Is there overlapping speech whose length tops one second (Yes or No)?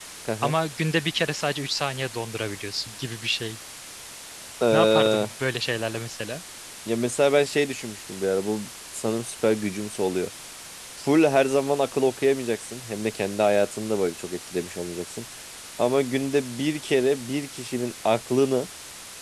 No